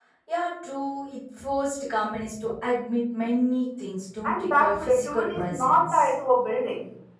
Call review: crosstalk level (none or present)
present